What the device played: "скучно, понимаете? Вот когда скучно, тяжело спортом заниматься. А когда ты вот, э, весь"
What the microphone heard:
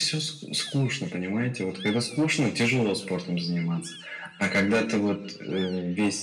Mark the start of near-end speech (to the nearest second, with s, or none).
none